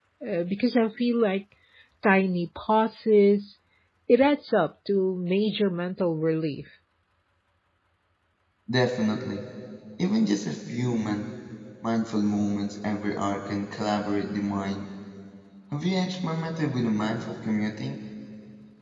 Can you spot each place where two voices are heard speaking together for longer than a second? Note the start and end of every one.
none

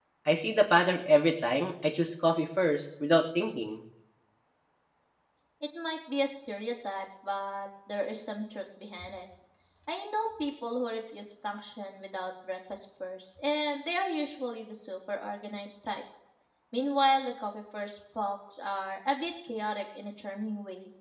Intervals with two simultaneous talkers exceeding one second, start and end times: none

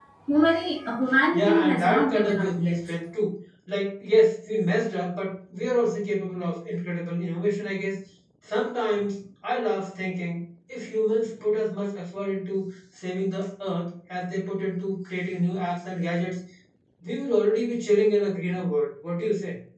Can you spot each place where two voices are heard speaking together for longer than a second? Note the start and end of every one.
1.3-2.8

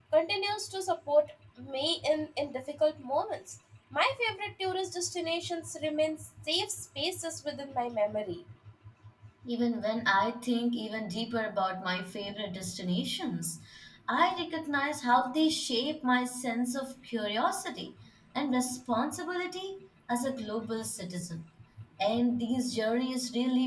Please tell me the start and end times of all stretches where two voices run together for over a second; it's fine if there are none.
none

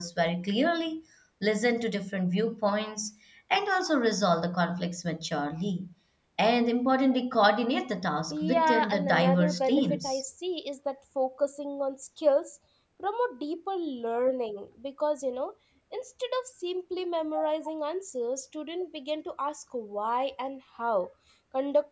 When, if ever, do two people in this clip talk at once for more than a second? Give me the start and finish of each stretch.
8.3-10.2

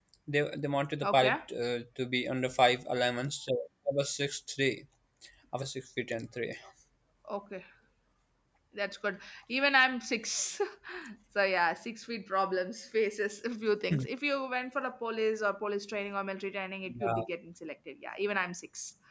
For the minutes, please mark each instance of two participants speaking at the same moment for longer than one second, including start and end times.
none

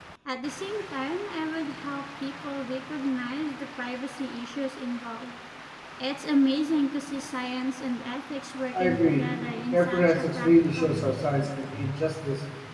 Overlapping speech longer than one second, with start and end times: 9.7-11.2

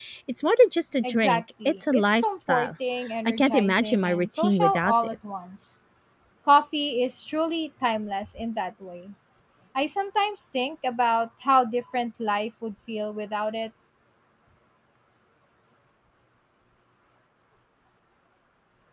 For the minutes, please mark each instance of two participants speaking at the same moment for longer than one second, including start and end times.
1.0-2.7, 3.2-5.2

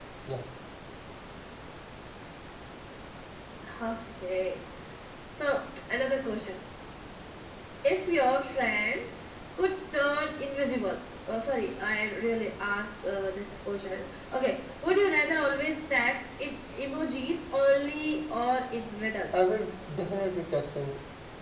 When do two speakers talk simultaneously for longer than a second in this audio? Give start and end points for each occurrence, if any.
none

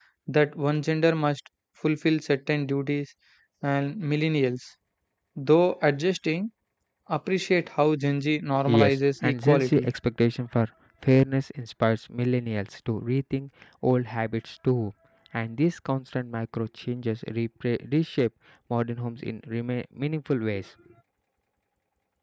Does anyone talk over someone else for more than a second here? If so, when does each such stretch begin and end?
8.7-9.9

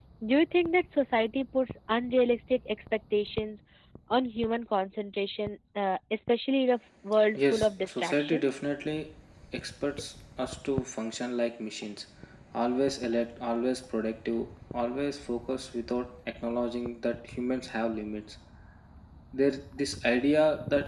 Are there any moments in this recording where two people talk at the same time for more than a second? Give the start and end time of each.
7.4-8.6

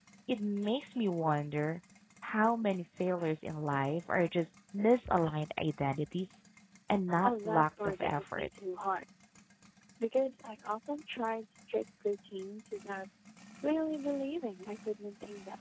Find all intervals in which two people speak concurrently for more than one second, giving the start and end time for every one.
7.2-8.5

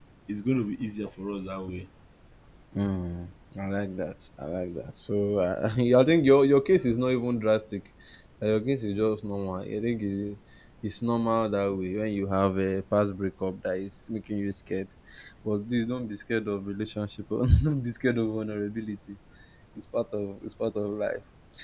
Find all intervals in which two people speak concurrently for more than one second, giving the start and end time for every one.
none

